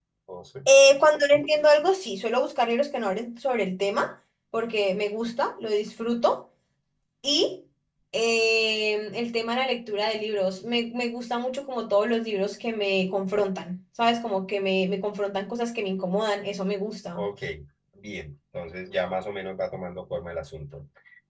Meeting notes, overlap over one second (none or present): none